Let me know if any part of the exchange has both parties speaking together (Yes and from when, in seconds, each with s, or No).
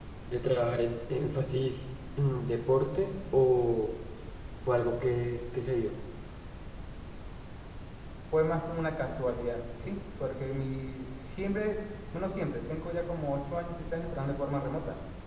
No